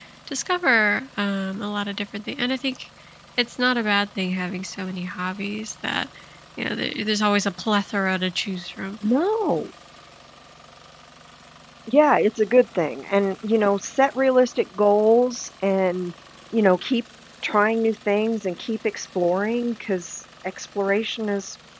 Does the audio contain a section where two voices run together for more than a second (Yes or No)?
No